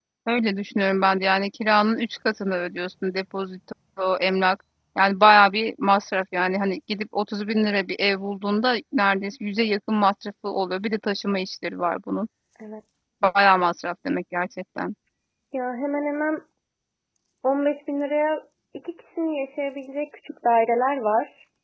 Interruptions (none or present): none